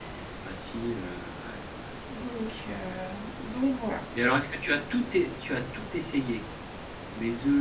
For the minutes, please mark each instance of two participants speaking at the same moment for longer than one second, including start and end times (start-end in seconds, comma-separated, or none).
none